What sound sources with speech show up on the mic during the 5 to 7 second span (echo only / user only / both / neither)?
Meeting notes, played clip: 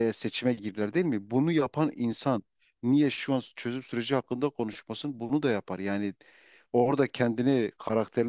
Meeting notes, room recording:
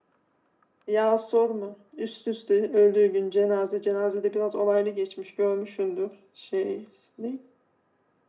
user only